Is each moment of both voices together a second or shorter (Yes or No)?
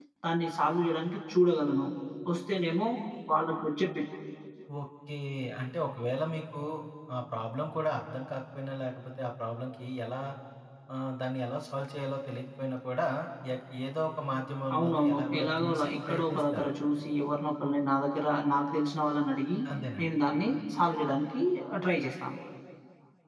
No